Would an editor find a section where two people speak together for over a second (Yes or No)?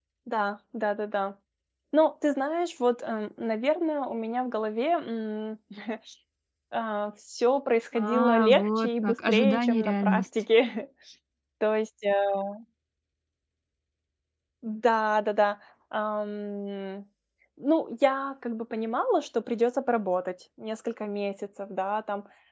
Yes